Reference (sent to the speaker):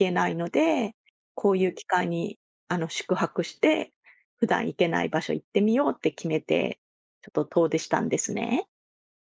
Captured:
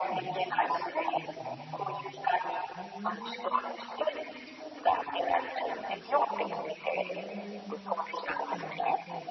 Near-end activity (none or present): present